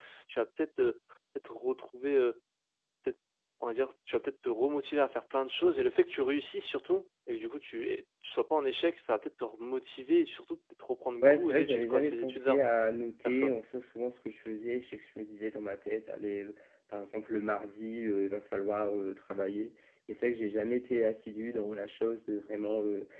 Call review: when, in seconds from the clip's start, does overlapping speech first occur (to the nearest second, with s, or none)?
11 s